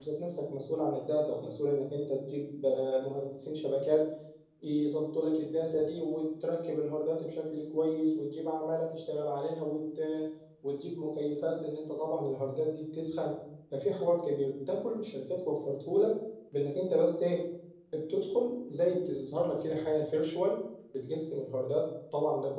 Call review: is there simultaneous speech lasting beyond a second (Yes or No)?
No